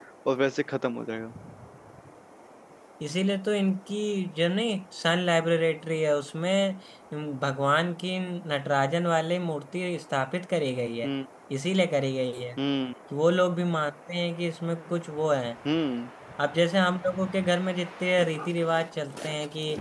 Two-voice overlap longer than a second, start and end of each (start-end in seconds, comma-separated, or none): none